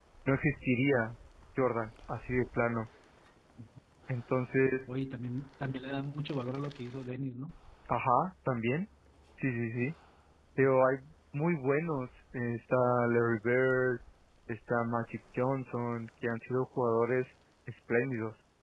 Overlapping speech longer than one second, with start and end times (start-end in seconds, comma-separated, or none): none